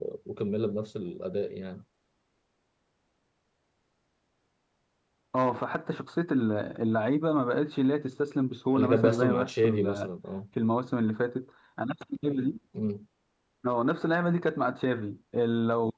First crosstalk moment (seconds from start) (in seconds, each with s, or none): 8.7 s